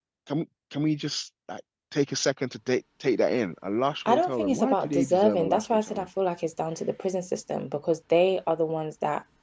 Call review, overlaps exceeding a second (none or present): present